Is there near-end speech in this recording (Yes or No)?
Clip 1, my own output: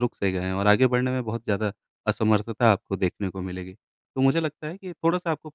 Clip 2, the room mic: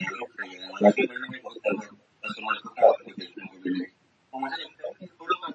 No